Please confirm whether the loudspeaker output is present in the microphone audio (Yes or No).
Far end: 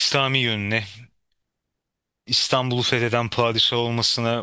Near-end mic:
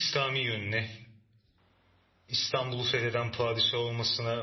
Yes